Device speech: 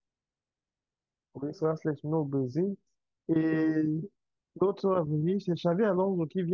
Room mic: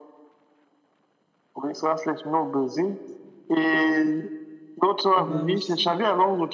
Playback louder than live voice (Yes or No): Yes